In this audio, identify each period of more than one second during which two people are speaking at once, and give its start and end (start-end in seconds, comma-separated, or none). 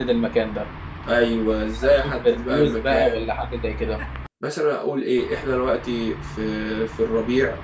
1.9-3.2